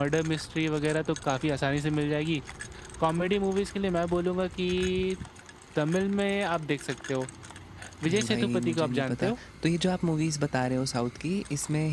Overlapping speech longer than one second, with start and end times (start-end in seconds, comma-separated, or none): 8.1-9.3